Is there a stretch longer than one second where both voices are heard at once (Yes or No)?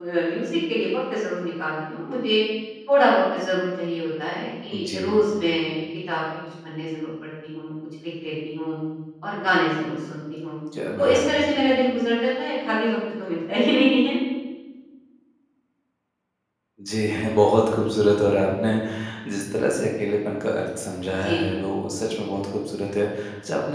No